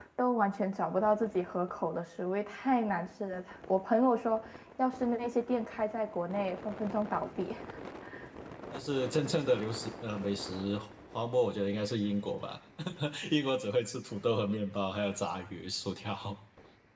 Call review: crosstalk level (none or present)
none